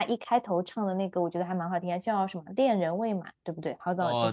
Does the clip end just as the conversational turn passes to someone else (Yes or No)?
Yes